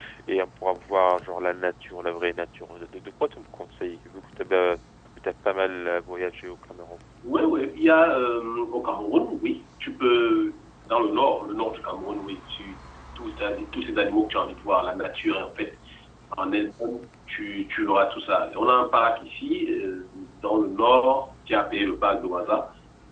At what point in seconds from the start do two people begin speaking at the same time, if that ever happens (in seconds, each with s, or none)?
none